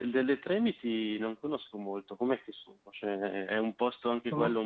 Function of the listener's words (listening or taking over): listening